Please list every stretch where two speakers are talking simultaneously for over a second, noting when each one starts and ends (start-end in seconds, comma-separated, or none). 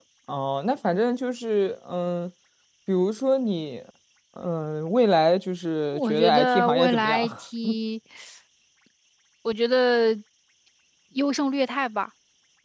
5.9-7.2